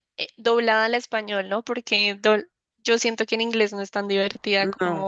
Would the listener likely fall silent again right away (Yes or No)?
Yes